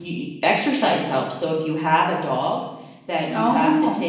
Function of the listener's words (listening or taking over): listening